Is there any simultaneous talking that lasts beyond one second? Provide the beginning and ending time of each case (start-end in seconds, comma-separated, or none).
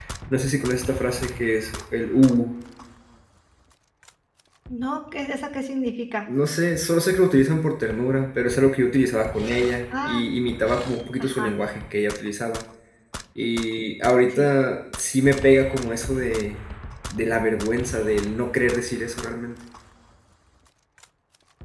none